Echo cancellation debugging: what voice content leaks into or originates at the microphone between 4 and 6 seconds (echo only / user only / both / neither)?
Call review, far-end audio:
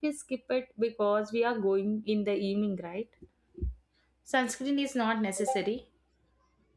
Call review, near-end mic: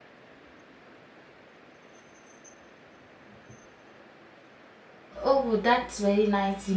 user only